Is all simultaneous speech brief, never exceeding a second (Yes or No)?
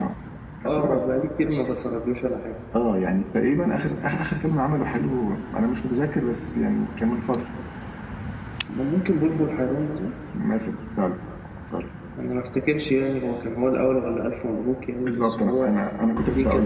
No